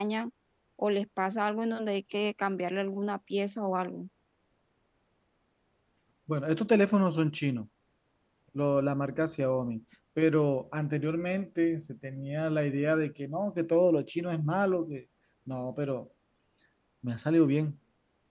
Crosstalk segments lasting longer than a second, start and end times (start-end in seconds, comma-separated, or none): none